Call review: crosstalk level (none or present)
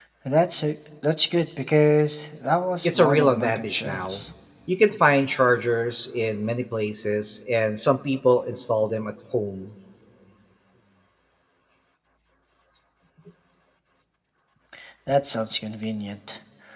present